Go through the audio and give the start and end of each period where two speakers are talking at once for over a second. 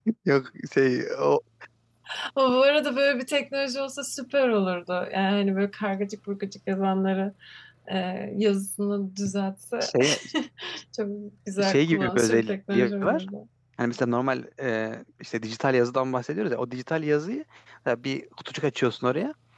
11.7-13.2

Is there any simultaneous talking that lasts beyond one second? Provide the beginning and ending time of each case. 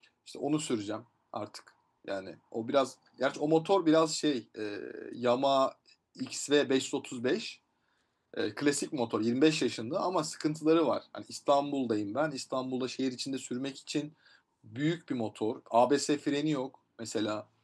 none

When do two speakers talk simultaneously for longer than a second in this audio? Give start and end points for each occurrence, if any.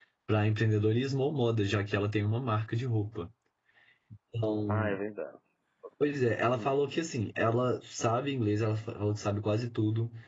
none

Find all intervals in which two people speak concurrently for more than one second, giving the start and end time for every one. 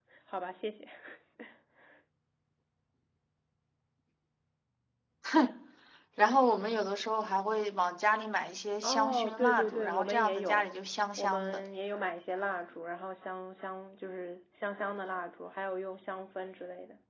8.8-10.6

